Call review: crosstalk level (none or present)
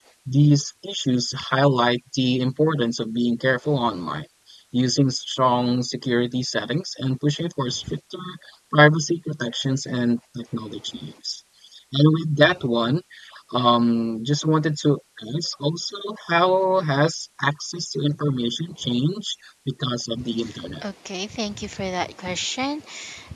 none